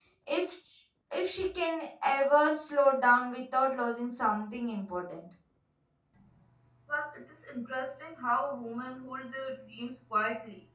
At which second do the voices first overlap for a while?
none

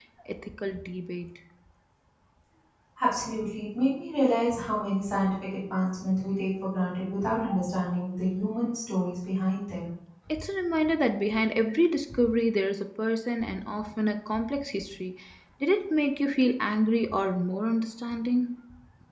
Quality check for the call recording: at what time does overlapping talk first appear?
none

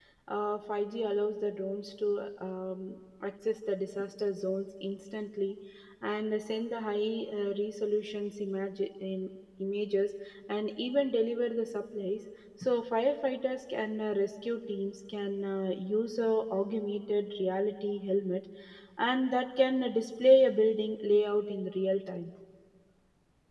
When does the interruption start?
none

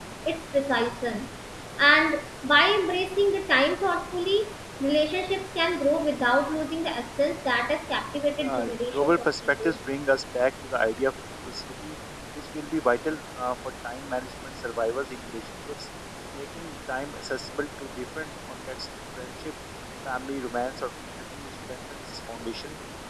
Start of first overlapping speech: 8 s

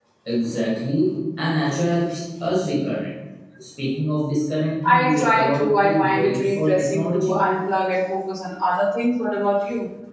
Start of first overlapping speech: 5 s

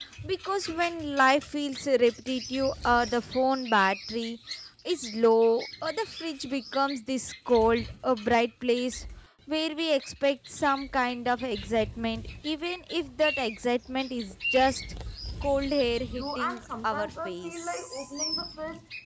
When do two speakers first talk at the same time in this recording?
16 s

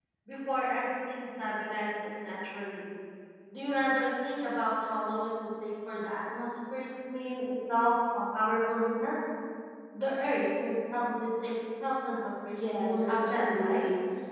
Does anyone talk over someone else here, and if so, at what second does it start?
13 s

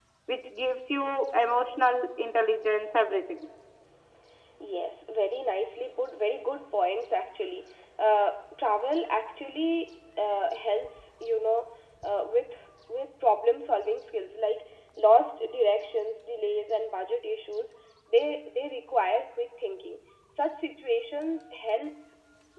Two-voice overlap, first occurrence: none

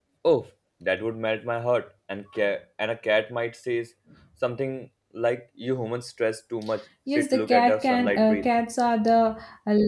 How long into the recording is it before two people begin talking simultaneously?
7 s

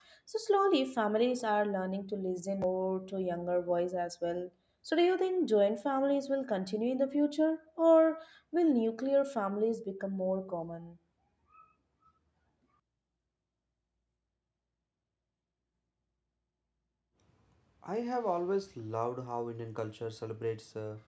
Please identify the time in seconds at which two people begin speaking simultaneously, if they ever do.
none

